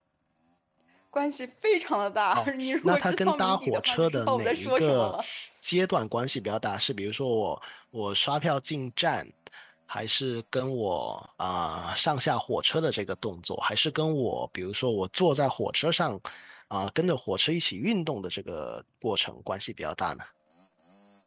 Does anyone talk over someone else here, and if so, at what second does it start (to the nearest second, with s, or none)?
2 s